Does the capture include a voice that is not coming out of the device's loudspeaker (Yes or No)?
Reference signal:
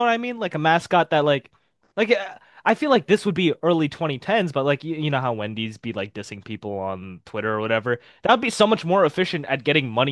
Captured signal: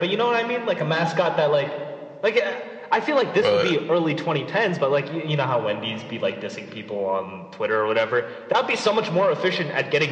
Yes